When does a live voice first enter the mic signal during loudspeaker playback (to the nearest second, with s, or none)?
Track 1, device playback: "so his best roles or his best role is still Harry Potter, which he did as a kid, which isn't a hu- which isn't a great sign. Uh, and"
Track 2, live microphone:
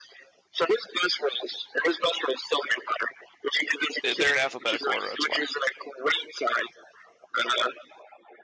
4 s